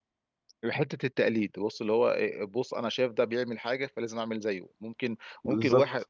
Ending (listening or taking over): listening